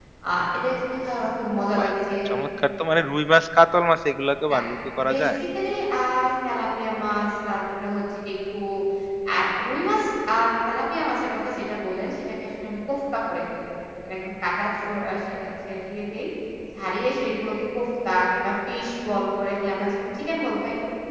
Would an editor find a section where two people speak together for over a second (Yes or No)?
No